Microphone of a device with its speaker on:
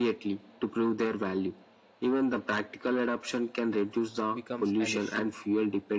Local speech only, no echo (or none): becomes an issue